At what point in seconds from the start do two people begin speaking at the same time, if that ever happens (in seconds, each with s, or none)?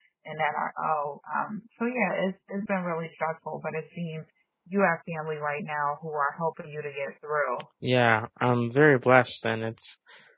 none